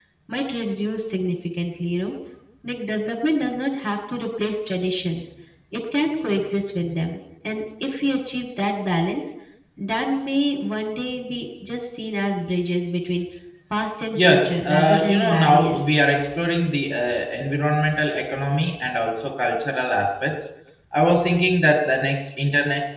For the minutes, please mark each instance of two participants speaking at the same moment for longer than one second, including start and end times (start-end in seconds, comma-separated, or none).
14.2-15.9